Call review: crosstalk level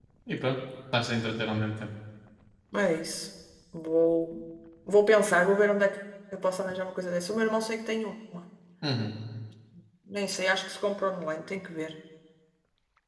none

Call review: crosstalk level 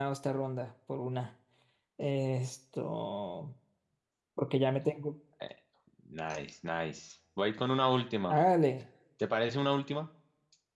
none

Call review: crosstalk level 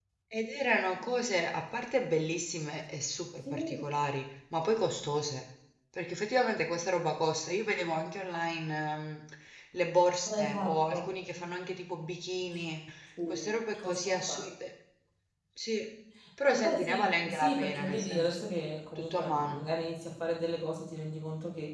present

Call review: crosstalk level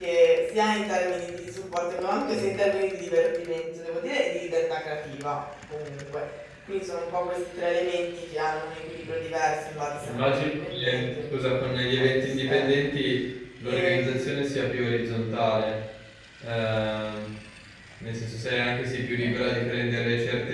present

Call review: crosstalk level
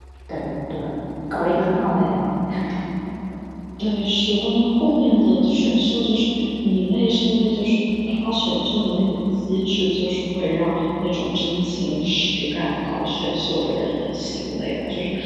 none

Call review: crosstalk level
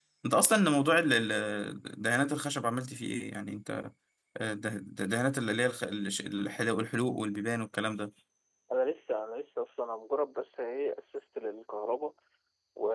none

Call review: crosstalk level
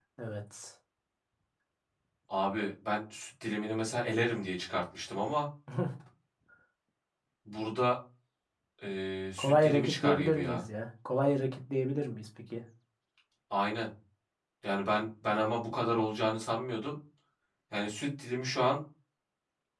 present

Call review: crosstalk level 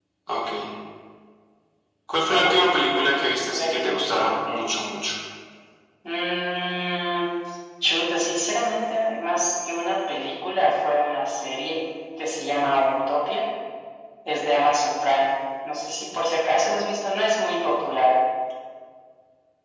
present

